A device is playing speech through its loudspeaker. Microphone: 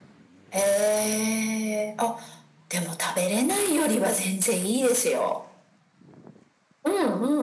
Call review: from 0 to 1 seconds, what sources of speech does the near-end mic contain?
echo only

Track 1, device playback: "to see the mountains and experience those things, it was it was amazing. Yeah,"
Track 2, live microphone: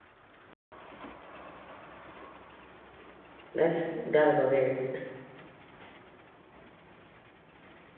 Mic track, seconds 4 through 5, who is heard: user only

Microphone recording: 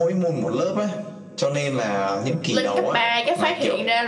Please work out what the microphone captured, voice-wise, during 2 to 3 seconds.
both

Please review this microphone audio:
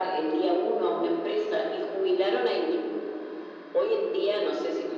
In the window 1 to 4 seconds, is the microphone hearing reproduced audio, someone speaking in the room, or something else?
echo only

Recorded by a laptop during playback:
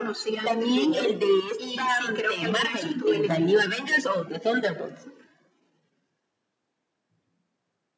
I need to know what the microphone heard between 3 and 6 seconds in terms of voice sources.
echo only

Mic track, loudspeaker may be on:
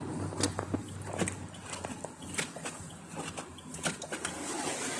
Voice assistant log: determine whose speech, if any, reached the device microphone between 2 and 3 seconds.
neither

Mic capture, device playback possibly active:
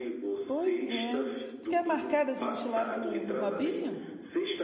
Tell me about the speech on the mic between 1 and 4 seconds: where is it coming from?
both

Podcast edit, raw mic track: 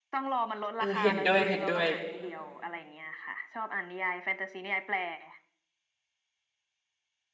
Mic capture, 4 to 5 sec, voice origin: echo only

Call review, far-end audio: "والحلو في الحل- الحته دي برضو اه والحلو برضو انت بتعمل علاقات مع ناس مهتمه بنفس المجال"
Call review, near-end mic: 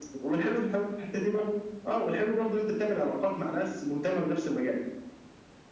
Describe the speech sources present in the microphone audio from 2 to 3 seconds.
echo only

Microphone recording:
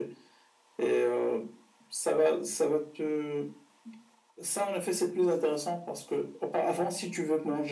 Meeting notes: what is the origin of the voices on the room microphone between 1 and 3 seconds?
echo only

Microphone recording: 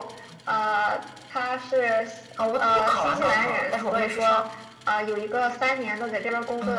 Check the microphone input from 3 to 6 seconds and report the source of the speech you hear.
echo only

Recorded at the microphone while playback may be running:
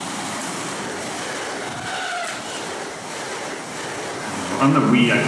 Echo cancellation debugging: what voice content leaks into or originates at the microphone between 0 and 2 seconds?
neither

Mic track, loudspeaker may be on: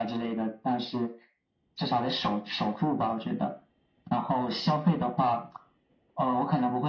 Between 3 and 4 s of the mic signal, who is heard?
echo only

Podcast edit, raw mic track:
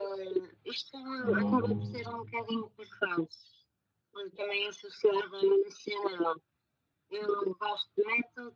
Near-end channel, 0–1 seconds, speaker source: echo only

